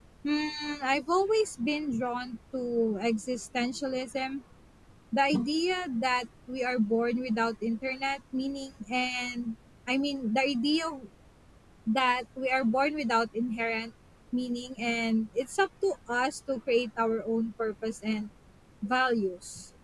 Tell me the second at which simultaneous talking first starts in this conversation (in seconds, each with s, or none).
none